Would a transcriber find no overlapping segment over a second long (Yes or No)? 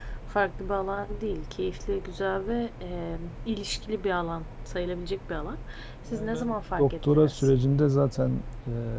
No